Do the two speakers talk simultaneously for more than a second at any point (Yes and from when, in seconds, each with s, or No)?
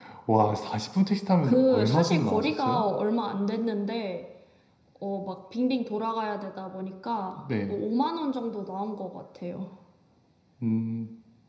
Yes, from 1.4 s